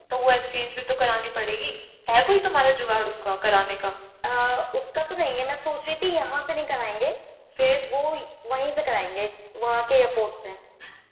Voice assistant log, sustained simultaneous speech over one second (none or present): none